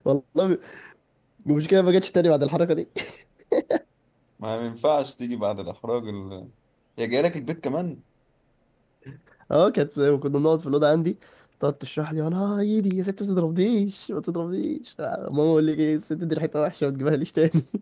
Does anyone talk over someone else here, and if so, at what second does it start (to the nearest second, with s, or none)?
none